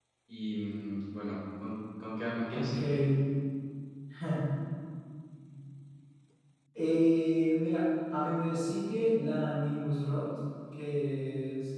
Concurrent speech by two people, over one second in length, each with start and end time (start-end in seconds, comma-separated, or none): none